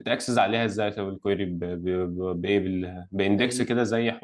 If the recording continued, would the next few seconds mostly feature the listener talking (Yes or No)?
No